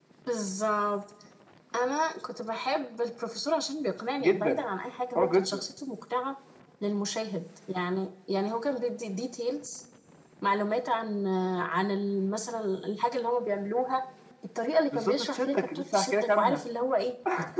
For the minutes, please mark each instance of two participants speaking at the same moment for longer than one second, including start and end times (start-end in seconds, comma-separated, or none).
14.9-16.6